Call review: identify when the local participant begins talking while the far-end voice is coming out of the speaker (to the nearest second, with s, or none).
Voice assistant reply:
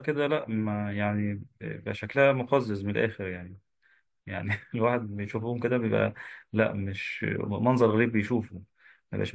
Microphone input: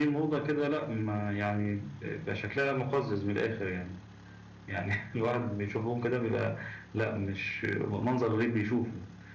none